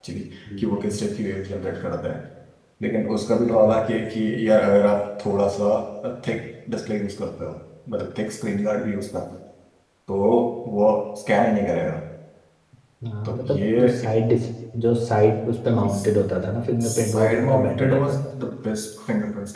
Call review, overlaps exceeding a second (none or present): present